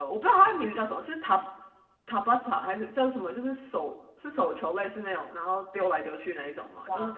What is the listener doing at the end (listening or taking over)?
listening